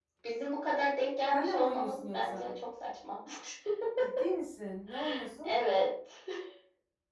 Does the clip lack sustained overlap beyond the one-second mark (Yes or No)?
No